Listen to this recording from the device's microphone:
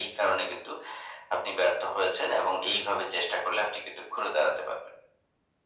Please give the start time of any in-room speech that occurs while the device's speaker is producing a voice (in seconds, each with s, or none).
none